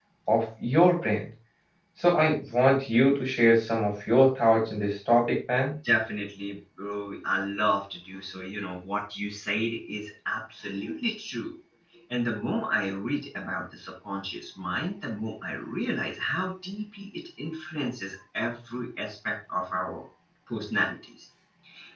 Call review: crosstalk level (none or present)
none